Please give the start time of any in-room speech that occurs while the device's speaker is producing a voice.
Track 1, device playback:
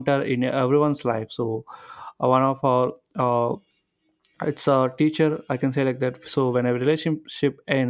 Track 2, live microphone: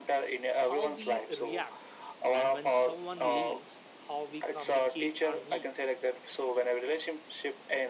0.6 s

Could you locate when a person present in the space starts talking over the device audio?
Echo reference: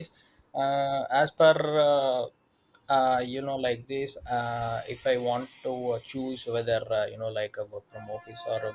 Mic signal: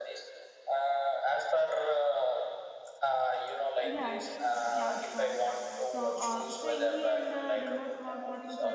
3.8 s

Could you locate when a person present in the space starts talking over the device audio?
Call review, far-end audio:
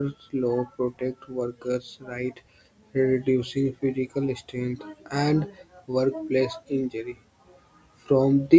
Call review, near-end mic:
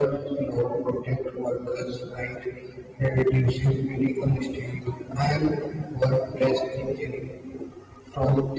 none

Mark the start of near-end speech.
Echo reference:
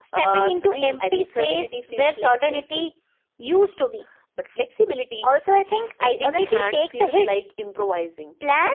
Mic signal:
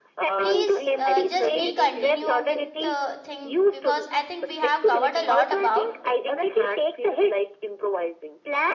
0.4 s

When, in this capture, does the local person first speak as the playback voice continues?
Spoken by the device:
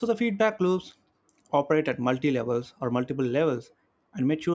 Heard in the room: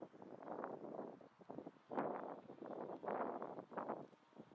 none

